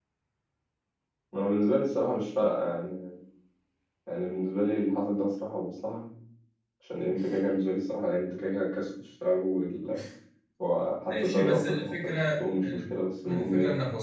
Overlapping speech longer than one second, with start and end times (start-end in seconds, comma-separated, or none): 11.1-12.8